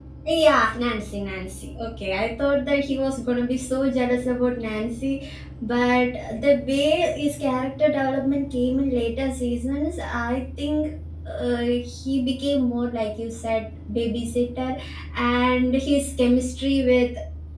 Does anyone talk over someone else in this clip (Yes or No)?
No